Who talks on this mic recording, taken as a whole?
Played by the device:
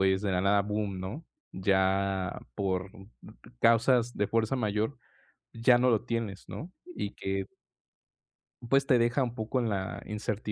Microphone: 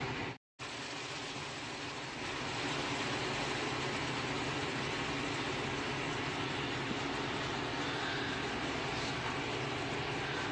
neither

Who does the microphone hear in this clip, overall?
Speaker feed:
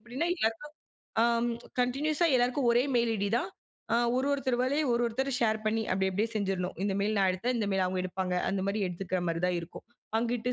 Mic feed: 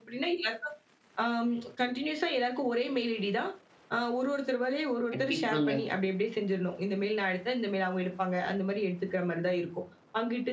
both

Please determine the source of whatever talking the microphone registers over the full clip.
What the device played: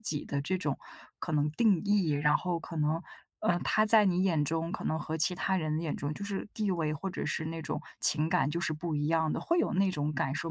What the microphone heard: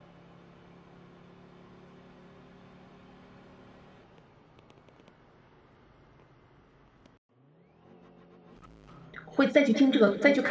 user only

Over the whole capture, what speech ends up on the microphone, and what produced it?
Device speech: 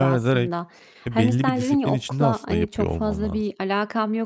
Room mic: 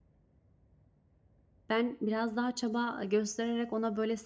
user only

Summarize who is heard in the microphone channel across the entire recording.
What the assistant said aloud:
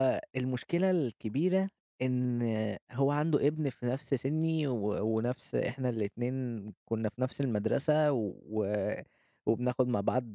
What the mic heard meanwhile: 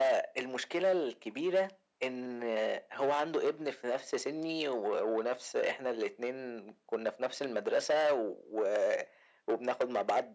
echo only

